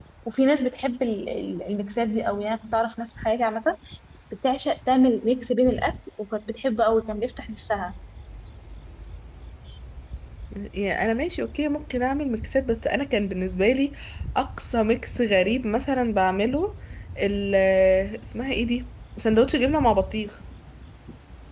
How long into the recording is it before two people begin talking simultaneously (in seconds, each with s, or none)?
none